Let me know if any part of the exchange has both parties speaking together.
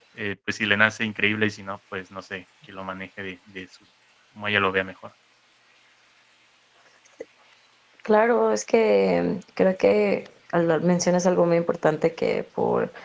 No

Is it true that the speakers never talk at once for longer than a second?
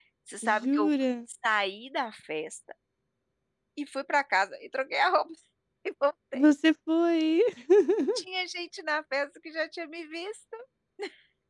Yes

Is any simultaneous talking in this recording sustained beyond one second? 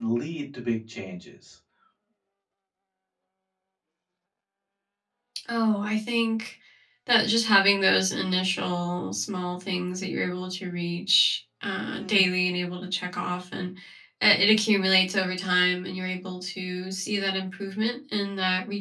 No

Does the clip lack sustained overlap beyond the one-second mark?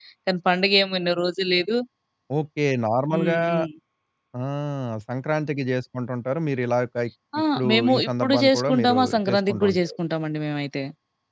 No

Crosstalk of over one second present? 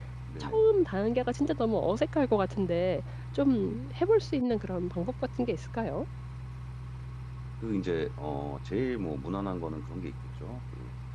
No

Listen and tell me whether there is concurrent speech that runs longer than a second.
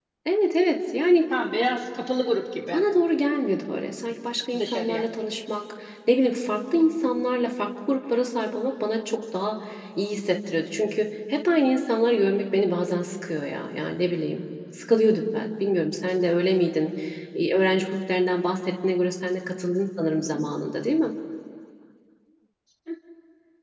No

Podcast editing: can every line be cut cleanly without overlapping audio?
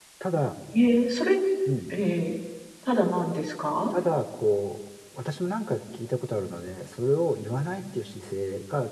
Yes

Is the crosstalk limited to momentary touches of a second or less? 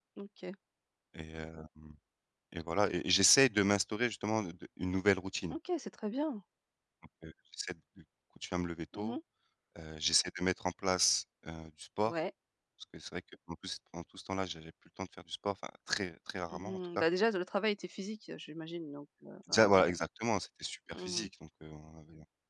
Yes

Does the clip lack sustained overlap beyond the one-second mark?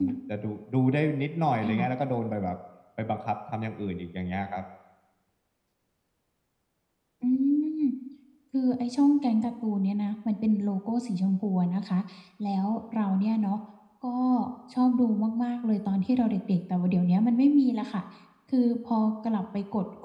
Yes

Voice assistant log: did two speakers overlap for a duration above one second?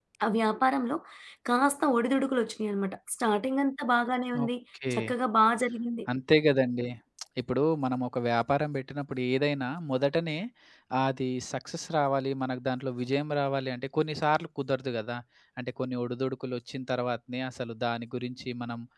No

